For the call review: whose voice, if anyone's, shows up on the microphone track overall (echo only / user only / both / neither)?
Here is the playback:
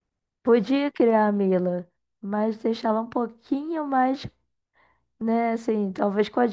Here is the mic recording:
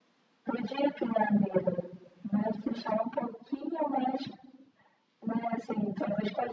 echo only